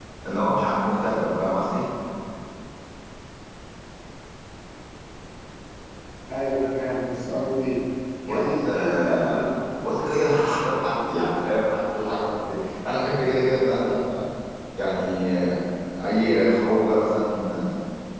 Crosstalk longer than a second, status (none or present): present